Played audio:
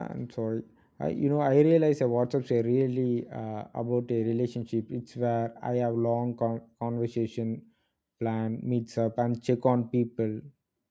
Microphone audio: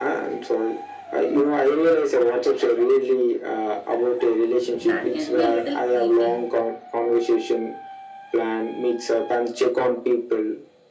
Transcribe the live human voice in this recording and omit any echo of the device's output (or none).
That can be a little creepy.